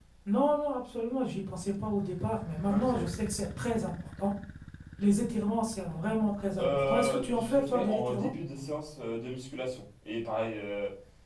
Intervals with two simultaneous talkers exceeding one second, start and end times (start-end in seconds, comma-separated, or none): 6.6-8.3